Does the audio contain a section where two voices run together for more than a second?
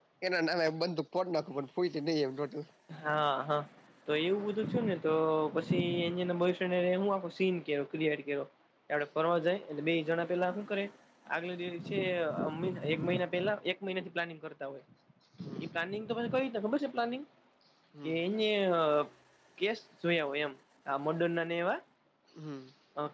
No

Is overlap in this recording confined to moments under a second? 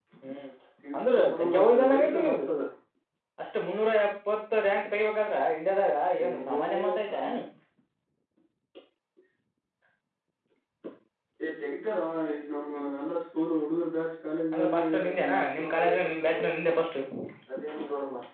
No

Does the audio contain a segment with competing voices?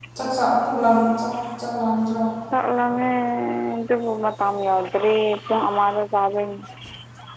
No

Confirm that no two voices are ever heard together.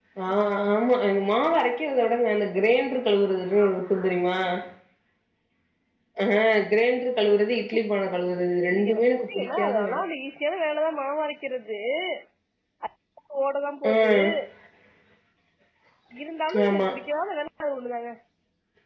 No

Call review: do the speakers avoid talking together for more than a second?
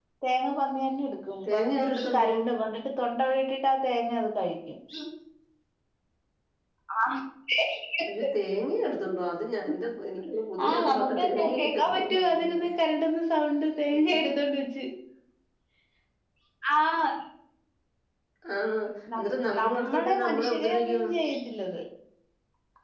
No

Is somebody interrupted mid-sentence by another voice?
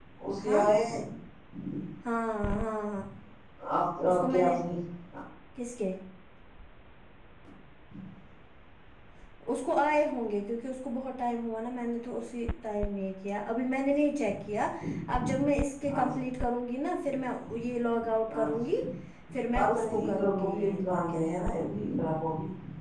Yes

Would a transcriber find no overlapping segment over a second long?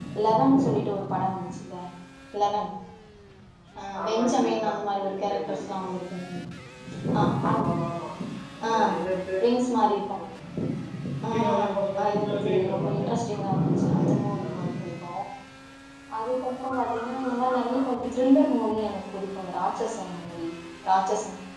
No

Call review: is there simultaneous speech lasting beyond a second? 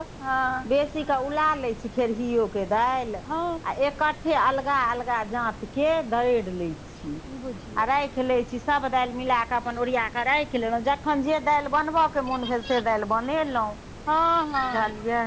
No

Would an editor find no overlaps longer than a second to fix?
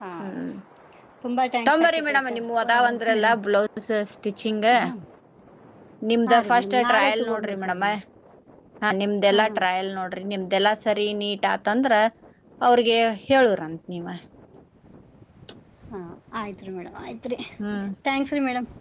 No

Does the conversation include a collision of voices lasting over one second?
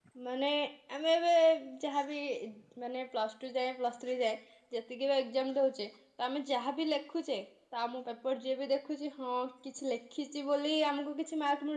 No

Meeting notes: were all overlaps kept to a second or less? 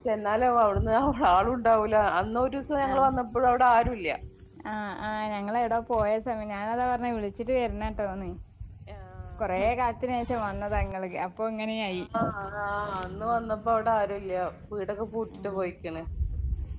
Yes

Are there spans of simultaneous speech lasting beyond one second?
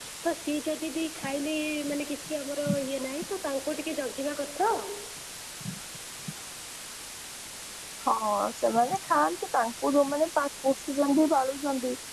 No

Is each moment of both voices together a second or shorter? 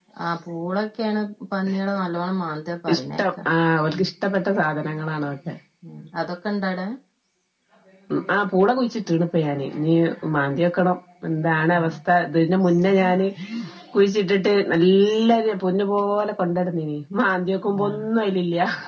Yes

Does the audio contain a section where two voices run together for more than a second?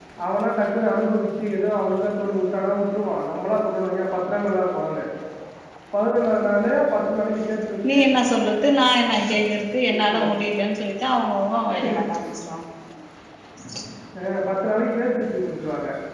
No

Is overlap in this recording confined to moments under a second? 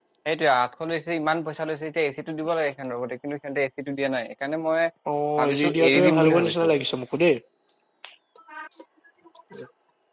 No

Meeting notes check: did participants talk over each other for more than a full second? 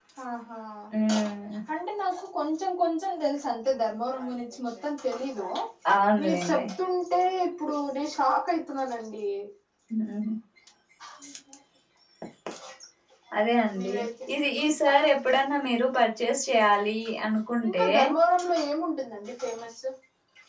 No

